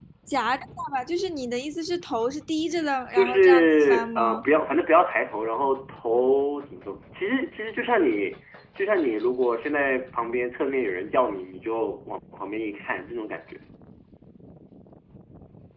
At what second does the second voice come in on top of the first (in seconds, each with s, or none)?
3.1 s